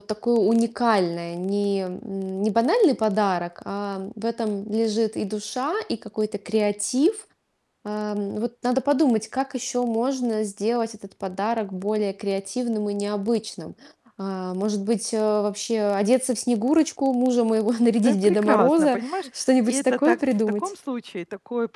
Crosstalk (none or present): present